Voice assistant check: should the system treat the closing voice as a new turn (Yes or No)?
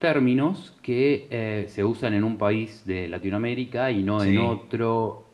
No